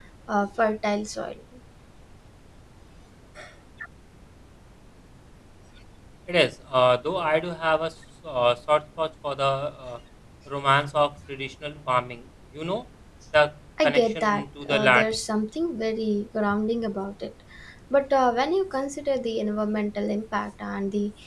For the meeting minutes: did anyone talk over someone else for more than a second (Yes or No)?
Yes